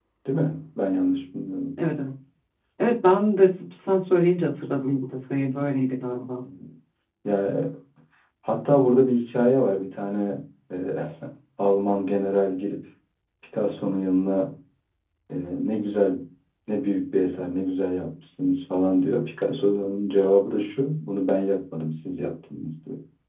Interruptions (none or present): none